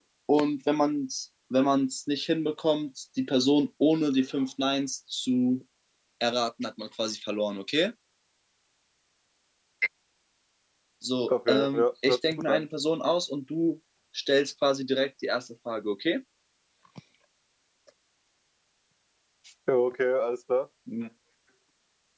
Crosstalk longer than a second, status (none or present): present